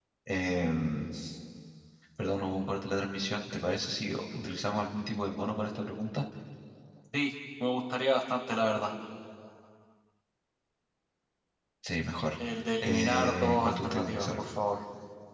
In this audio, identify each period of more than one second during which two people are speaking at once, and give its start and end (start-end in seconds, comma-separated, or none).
12.8-14.4